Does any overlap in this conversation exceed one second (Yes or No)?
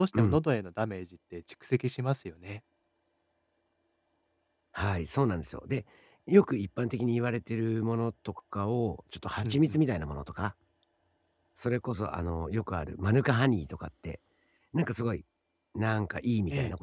No